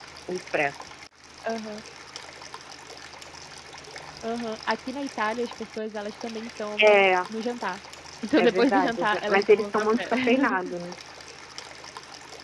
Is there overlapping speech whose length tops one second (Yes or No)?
Yes